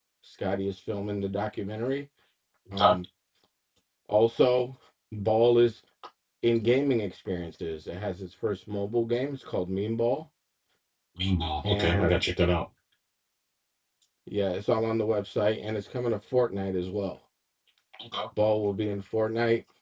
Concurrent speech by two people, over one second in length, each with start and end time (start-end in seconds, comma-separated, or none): none